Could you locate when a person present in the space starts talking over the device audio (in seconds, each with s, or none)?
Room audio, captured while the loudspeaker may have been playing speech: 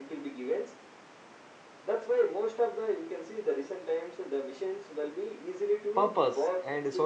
6.0 s